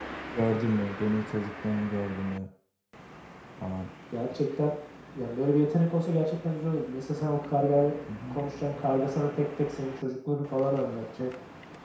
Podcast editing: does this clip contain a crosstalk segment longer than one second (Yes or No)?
No